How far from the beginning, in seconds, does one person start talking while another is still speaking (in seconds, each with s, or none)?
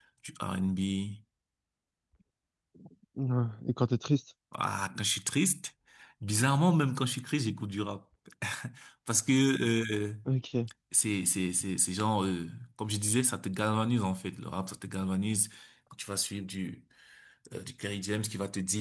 none